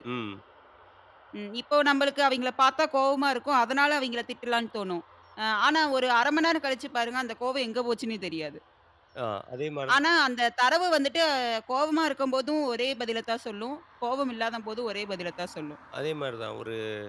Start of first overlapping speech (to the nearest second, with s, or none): none